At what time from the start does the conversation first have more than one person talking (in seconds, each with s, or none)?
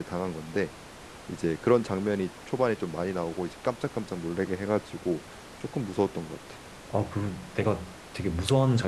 none